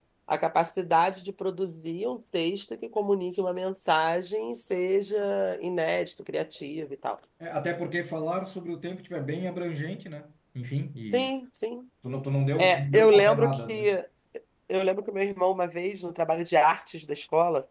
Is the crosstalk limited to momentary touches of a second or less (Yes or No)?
No